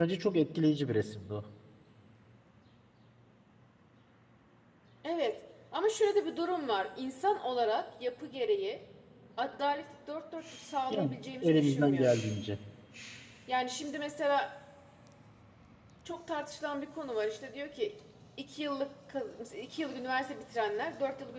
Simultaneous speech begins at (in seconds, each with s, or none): 10.9 s